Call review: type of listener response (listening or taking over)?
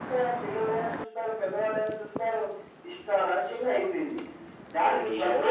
taking over